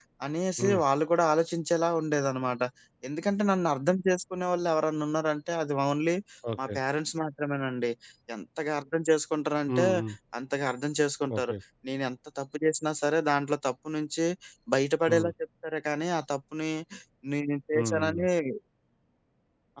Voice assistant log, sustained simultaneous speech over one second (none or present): none